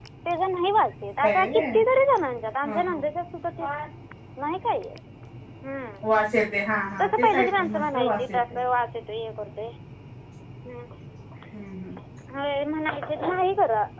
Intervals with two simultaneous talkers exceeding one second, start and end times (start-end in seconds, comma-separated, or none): 7.0-8.6